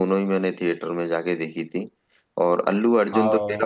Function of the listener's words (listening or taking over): listening